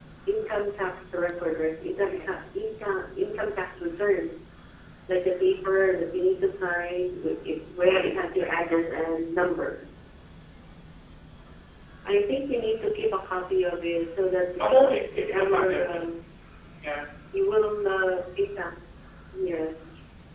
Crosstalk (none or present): present